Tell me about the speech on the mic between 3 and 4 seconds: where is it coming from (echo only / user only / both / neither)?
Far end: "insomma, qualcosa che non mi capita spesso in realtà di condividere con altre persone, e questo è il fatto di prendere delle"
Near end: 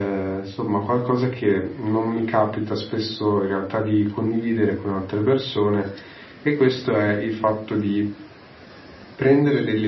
echo only